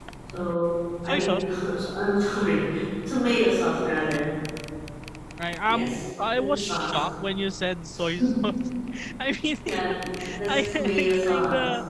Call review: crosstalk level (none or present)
present